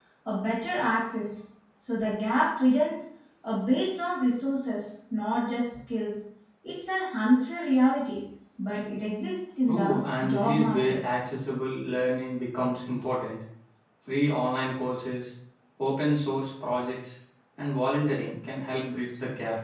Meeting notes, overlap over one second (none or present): present